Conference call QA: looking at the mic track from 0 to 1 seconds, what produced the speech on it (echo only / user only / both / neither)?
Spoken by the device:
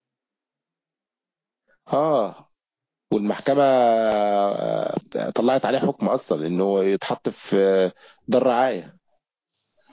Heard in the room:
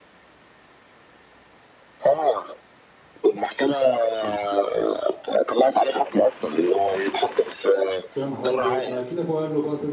neither